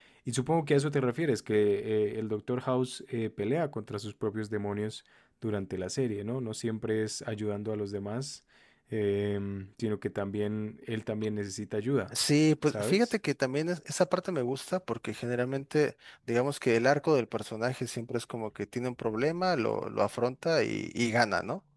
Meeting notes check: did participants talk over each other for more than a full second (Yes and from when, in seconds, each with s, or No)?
No